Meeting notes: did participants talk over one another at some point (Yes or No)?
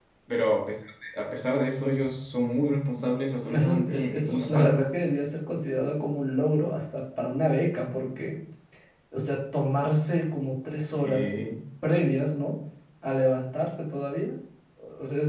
Yes